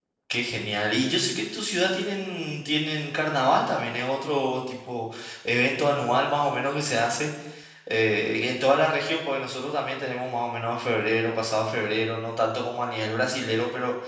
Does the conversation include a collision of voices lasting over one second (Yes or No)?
No